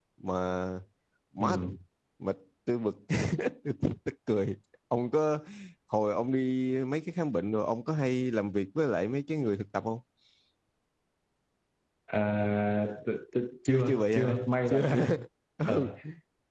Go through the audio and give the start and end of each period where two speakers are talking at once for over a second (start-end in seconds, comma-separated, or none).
13.7-15.1